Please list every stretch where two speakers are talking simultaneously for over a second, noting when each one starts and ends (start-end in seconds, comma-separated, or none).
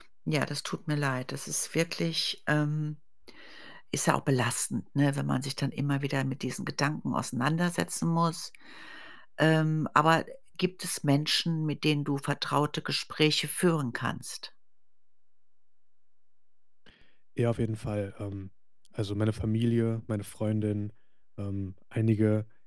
none